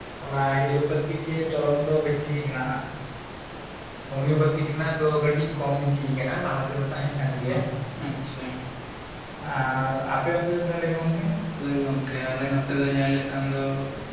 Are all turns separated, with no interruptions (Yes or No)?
Yes